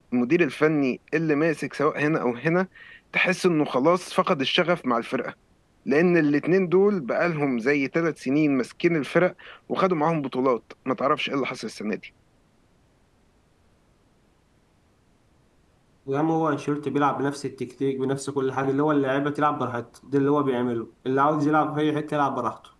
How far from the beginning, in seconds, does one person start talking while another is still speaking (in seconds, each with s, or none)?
none